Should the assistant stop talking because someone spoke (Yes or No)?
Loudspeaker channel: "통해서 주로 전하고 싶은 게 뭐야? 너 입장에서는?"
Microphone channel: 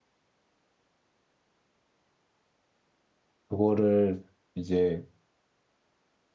Yes